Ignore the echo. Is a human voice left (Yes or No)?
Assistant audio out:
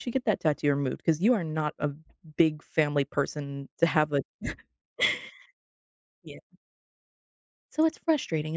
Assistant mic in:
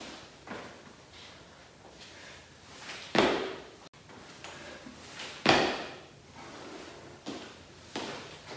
No